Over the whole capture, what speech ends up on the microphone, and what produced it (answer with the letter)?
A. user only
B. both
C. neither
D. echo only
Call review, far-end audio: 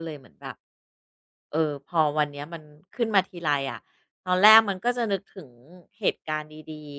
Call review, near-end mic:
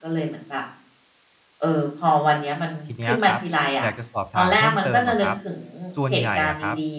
B